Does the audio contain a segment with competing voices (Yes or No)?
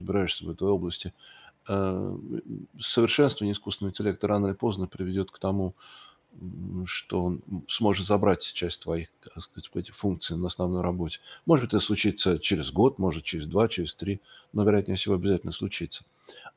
No